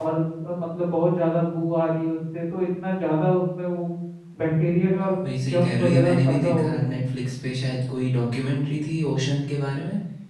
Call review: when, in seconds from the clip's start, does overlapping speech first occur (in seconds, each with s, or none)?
5.5 s